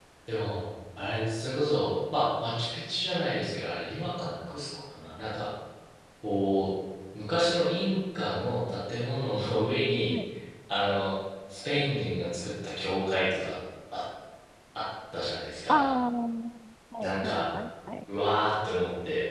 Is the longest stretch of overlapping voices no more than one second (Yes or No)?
Yes